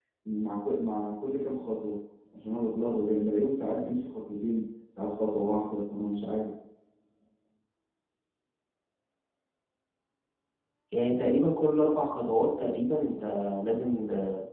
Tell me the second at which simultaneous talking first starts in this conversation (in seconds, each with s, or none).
none